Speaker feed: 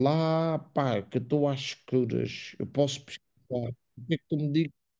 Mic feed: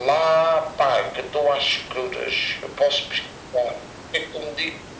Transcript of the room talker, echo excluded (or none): none